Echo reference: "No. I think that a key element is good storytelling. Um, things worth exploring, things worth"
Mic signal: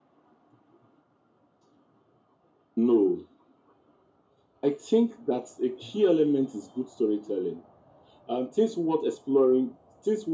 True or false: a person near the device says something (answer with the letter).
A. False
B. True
A